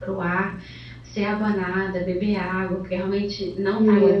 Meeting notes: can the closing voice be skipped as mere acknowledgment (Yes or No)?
No